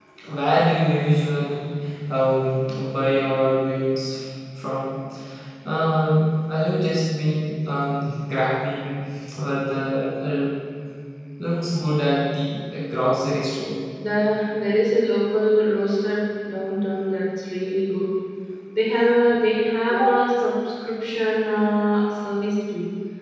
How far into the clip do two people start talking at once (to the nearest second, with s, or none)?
none